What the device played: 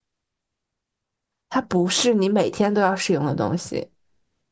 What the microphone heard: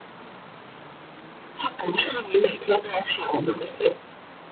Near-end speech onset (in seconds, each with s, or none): none